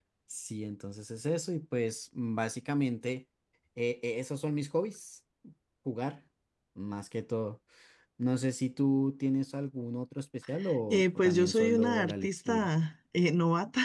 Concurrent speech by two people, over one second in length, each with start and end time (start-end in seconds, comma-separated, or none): 10.9-12.7